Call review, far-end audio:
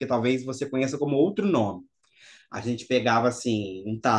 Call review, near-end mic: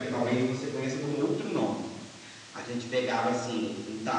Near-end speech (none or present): none